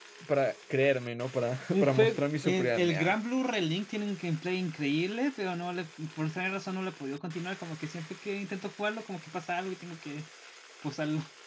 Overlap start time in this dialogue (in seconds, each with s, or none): 1.7 s